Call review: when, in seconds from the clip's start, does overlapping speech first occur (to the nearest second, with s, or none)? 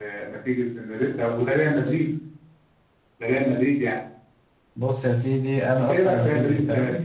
6 s